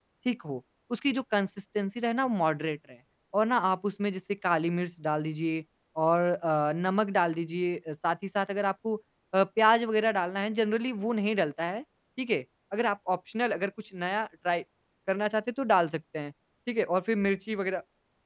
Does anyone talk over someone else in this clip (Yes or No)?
No